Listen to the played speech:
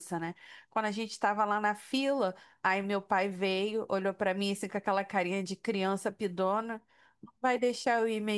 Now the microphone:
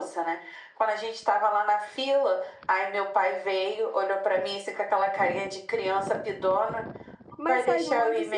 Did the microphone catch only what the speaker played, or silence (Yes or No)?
No